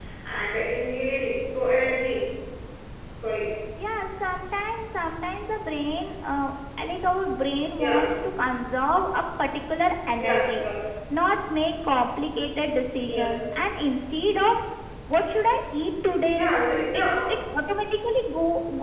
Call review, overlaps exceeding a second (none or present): none